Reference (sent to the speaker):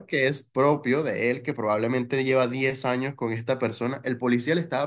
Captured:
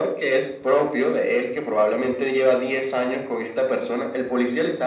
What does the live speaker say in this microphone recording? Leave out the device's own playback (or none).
none